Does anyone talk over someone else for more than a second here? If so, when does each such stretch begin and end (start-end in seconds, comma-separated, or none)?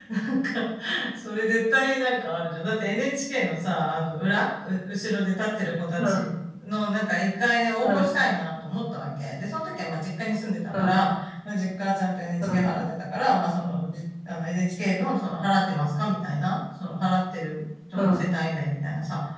none